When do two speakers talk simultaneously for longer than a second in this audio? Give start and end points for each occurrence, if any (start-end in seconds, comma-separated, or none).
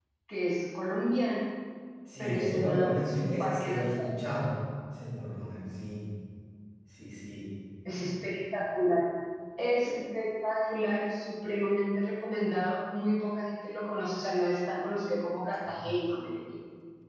2.2-4.1